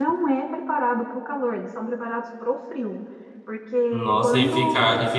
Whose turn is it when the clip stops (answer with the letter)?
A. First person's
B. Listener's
B